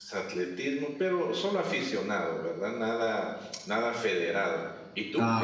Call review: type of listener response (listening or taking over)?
listening